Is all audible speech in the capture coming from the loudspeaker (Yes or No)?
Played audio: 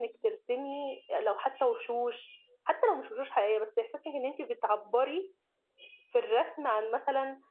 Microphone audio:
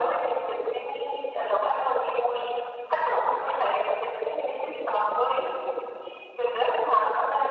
Yes